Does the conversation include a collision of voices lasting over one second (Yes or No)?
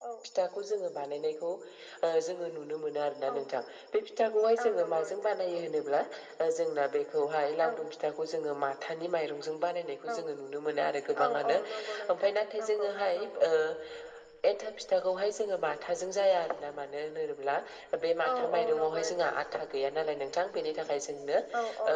Yes